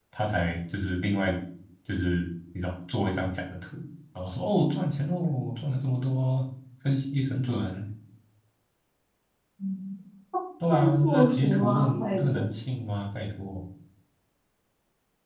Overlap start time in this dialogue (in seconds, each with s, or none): 10.7 s